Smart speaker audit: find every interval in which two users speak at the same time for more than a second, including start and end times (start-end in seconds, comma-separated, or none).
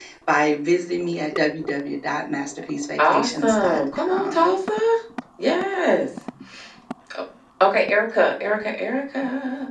3.0-4.6